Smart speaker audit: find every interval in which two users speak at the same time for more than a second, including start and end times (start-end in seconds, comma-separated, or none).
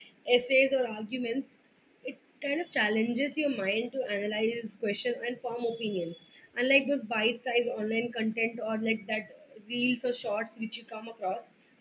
none